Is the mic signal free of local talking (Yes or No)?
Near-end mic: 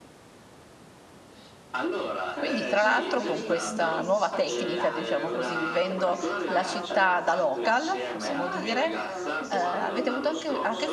No